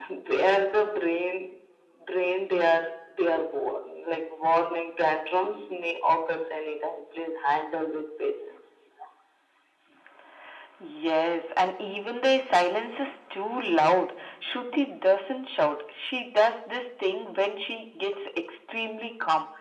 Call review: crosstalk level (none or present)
none